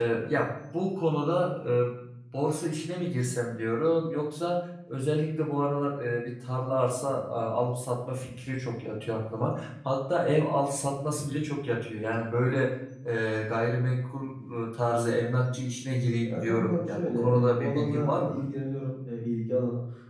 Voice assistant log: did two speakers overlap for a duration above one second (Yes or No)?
Yes